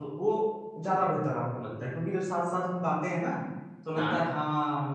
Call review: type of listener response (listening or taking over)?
listening